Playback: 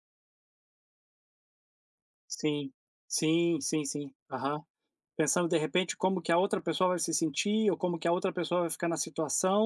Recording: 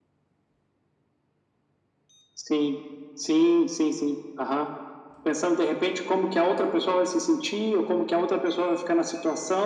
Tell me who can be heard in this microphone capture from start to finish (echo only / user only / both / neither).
echo only